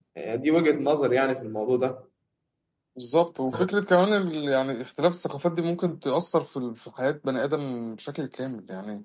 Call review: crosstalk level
none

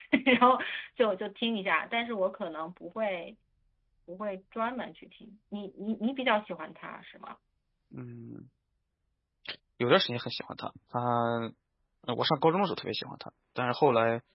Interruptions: none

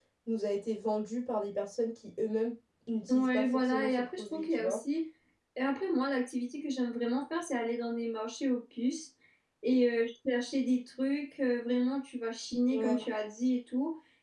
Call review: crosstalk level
present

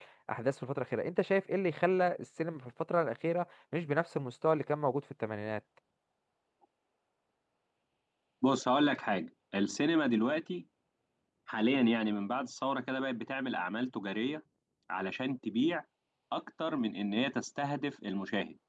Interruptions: none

